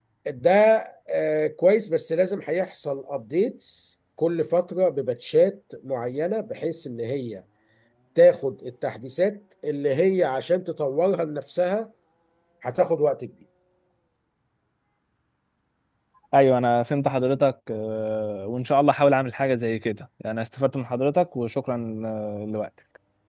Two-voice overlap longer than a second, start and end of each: none

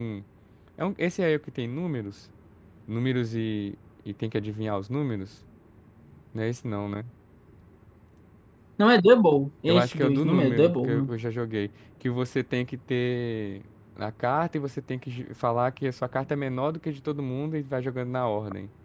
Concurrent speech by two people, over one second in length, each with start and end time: 9.7-11.1

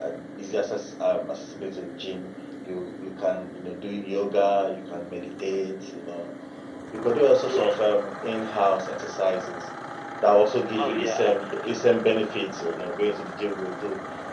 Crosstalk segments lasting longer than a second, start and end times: 10.7-12.1

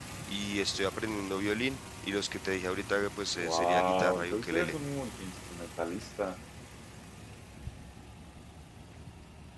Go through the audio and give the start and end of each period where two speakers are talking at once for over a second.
3.3-4.7

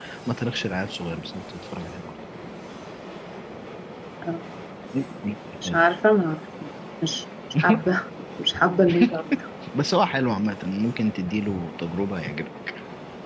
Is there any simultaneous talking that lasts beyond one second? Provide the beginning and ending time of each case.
none

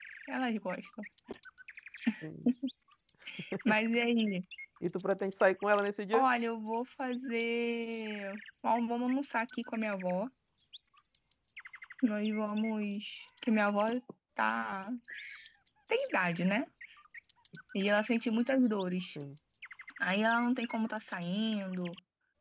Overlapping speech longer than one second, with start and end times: none

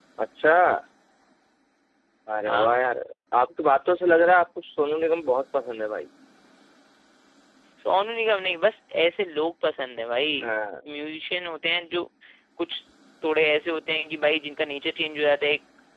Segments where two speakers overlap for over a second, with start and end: none

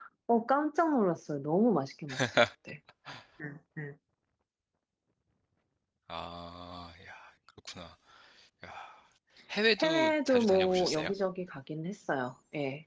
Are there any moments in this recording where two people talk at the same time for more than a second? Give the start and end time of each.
9.8-11.1

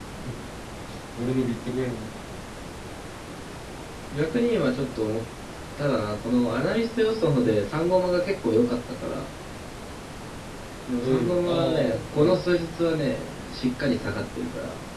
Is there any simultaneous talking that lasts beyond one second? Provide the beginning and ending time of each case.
11.0-12.3

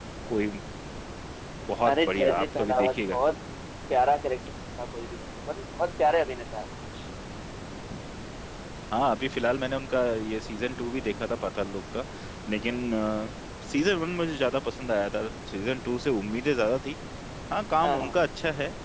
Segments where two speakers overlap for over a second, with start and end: 1.9-3.2

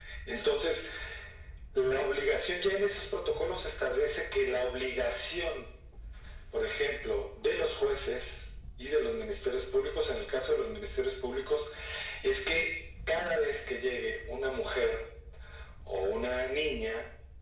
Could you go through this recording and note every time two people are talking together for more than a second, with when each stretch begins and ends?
none

